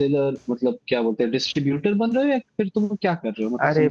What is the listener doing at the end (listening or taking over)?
taking over